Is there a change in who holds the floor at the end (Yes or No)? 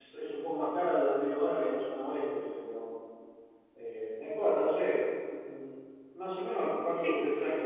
No